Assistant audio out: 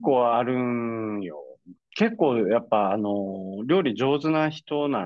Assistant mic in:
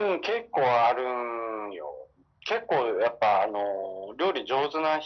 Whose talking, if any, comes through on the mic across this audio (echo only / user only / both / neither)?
echo only